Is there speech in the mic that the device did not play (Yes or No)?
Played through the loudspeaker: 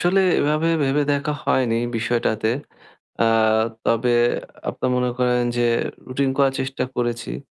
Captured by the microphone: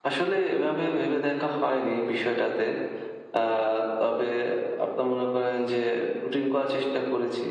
No